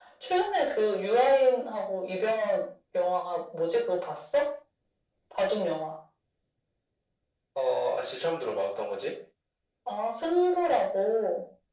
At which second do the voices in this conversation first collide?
none

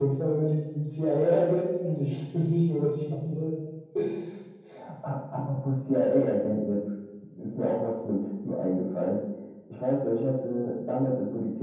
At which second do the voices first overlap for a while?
none

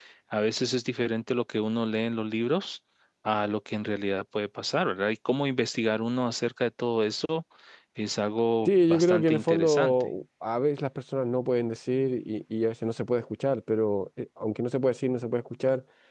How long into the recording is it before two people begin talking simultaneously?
8.6 s

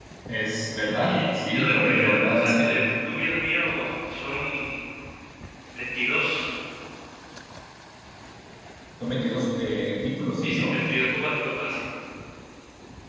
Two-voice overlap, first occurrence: 0.8 s

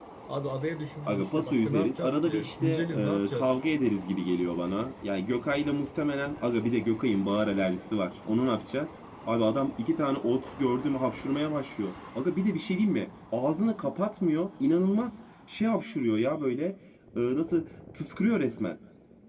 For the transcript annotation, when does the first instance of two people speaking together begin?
1.1 s

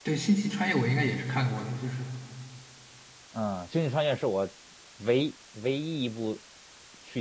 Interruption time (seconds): none

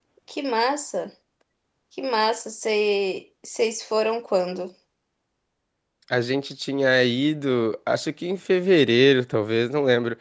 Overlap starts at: none

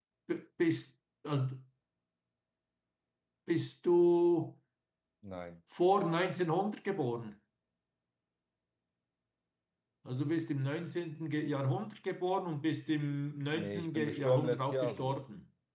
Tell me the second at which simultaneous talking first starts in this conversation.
13.5 s

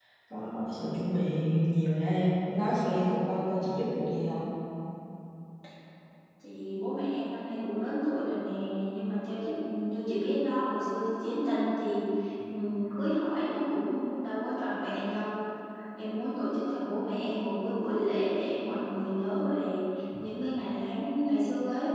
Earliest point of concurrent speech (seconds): none

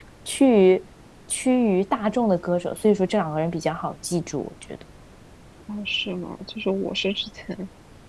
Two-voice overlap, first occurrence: none

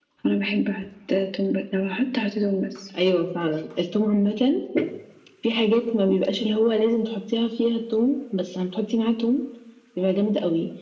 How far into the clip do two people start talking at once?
none

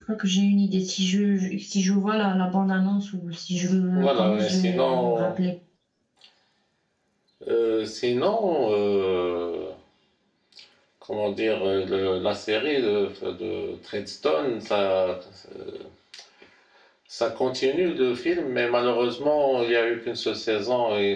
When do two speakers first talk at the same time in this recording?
4.0 s

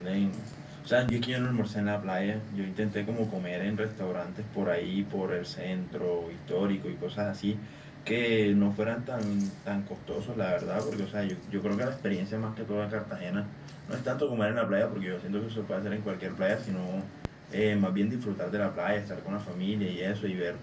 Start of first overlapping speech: none

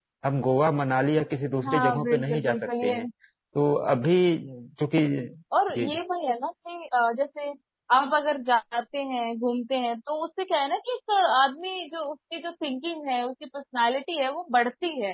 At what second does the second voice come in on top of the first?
1.7 s

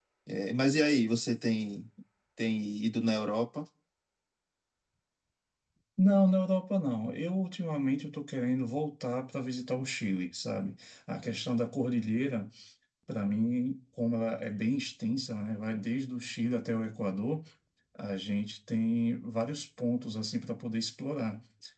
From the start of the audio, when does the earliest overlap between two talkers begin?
none

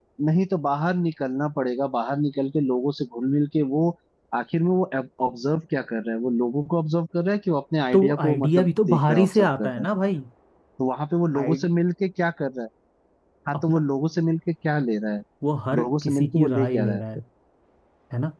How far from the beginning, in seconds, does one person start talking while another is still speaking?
7.9 s

